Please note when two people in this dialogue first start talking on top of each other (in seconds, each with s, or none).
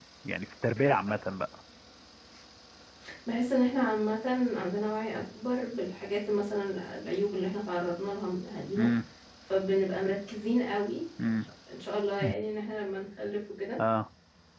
none